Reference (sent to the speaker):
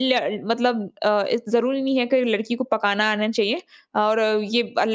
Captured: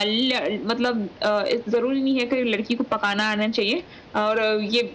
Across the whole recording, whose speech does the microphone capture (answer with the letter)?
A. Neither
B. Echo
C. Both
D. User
B